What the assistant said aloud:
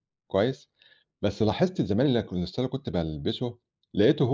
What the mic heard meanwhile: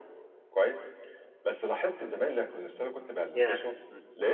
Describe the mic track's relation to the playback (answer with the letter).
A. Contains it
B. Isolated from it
A